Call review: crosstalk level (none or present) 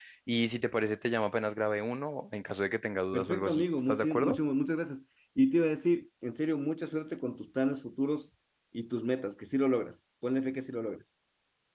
present